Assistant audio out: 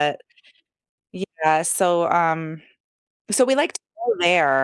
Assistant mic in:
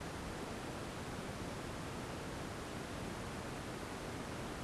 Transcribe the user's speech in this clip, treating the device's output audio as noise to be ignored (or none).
none